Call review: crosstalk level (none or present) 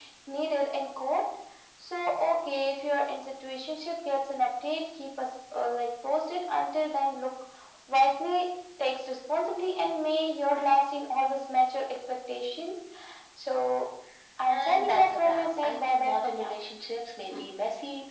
present